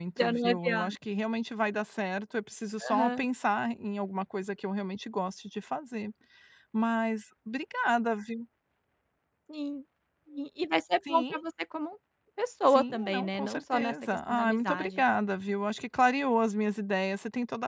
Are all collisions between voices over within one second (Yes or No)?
No